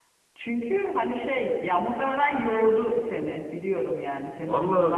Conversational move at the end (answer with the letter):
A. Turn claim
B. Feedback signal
A